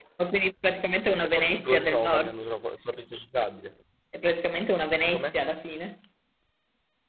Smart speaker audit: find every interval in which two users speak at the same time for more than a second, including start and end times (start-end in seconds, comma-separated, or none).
1.1-2.4